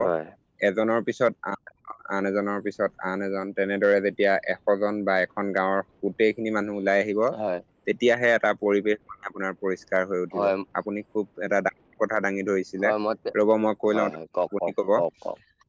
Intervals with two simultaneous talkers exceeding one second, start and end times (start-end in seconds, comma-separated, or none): none